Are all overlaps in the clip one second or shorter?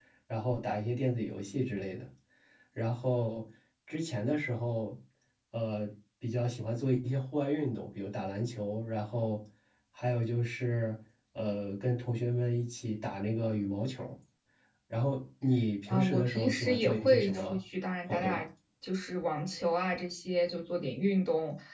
No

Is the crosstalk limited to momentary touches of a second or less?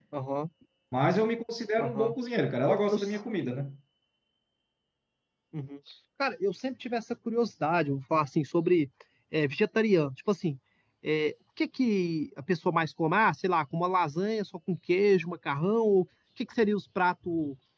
Yes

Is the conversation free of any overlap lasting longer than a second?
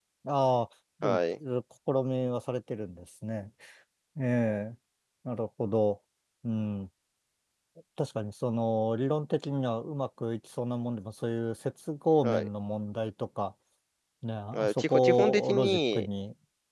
No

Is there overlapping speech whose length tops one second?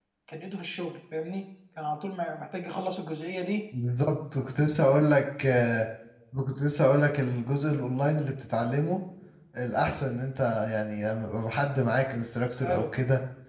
No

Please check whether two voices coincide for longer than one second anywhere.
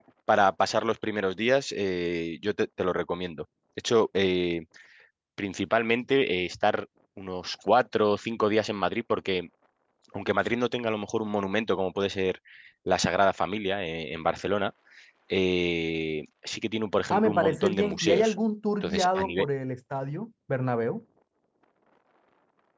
Yes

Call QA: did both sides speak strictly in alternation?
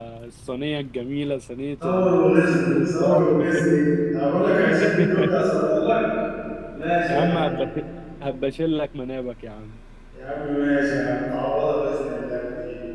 No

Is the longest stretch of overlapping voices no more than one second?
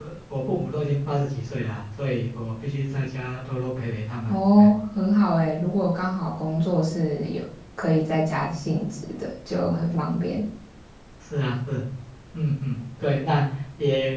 Yes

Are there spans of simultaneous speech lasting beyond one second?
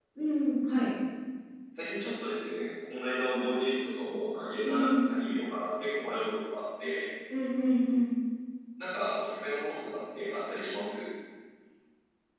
No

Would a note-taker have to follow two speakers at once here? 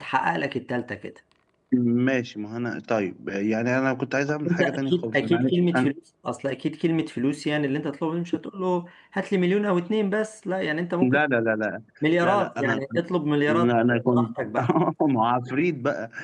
Yes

